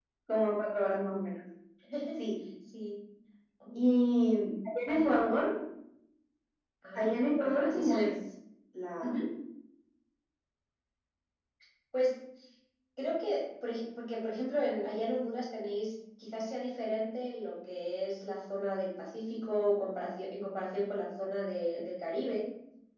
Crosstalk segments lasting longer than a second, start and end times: 6.9-8.2

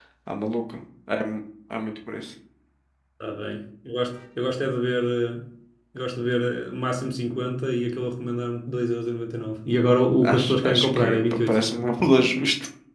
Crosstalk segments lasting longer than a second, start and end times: 10.2-11.9

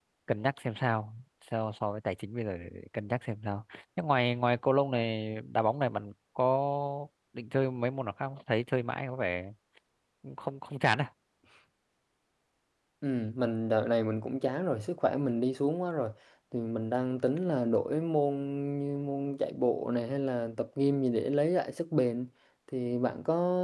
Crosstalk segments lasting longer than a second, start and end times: none

